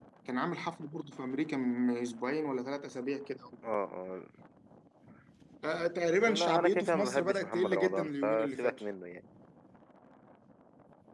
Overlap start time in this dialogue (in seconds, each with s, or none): 6.3 s